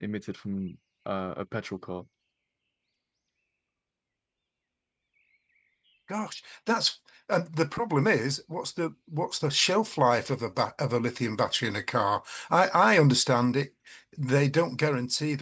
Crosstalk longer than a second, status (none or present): none